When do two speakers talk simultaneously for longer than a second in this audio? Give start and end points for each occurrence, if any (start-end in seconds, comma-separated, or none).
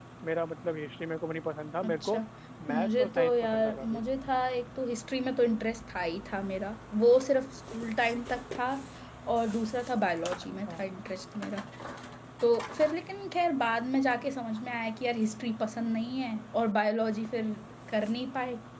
2.7-4.0